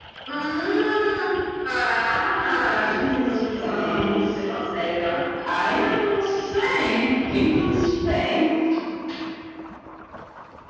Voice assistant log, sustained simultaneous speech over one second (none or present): present